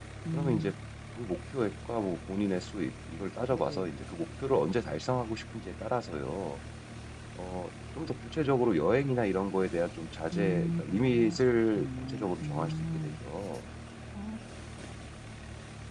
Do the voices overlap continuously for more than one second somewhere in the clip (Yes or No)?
Yes